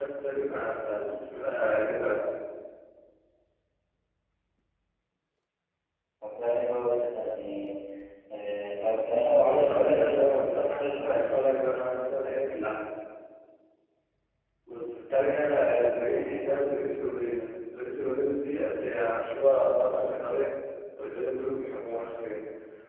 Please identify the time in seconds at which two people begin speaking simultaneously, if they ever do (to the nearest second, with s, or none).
9 s